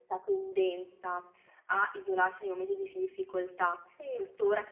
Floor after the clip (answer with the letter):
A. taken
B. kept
B